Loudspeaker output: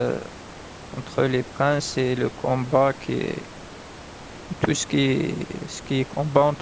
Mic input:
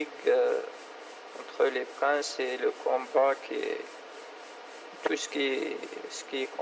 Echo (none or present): present